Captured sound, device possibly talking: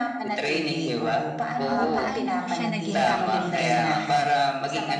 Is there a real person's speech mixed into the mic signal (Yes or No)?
Yes